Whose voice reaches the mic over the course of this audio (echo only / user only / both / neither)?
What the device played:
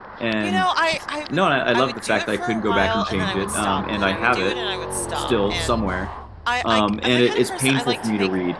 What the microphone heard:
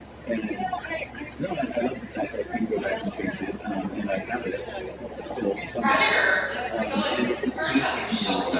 both